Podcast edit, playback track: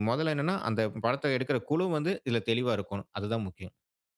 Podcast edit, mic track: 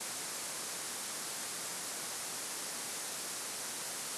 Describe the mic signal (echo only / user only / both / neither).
neither